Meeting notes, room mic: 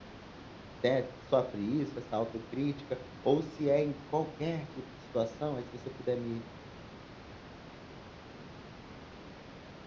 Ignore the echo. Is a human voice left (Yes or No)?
Yes